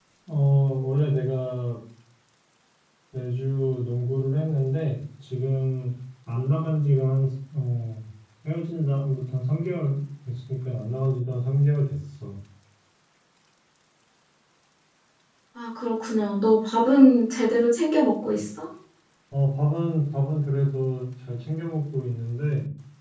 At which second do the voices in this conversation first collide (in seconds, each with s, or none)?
none